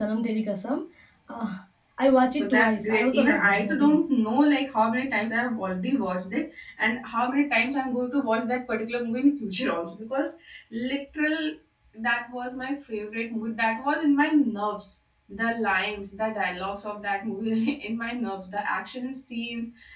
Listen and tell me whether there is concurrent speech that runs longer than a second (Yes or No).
Yes